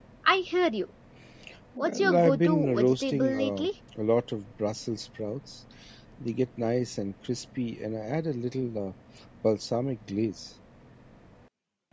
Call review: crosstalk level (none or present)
present